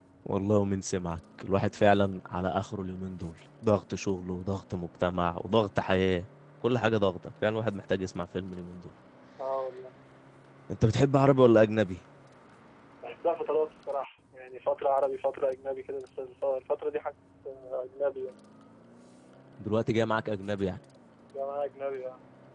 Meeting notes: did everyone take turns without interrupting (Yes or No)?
Yes